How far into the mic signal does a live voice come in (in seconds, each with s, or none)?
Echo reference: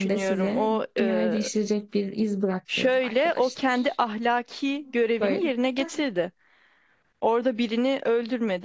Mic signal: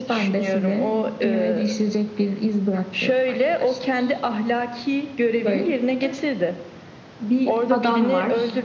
7.2 s